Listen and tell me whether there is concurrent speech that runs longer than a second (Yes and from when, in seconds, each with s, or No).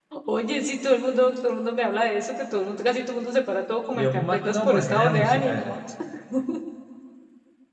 Yes, from 3.9 s